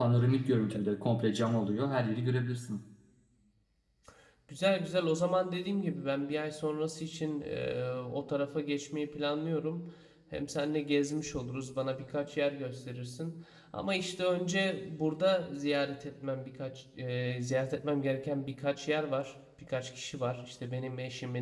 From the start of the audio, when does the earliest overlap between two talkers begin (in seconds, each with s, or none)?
none